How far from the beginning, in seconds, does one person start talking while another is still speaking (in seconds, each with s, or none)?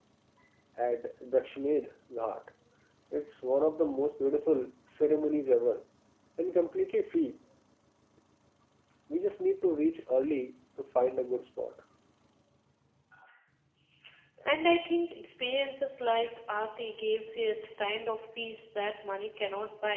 none